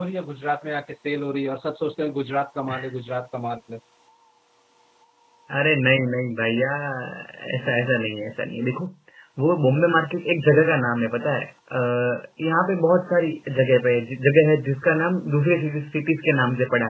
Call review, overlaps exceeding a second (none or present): none